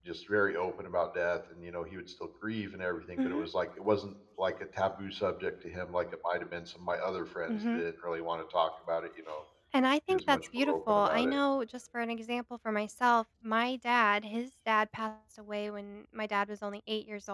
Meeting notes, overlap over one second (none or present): present